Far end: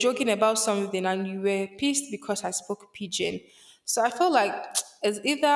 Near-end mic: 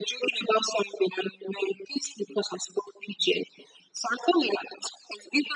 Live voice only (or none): none